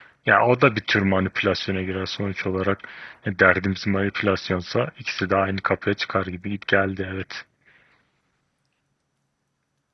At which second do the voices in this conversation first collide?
none

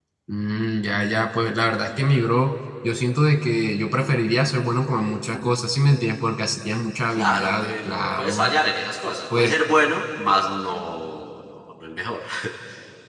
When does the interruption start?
7 s

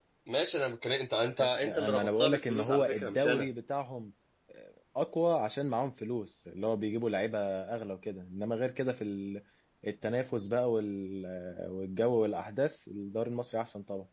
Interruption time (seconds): 1 s

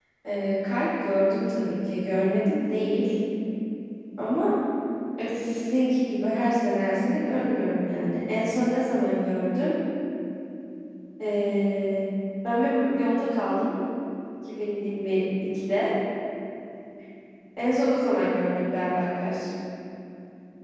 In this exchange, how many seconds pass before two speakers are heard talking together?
none

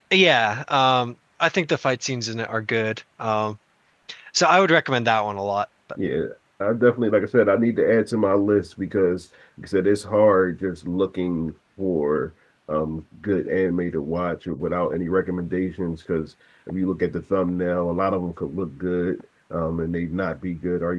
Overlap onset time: none

